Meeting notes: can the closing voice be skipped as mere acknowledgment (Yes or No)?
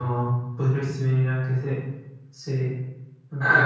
No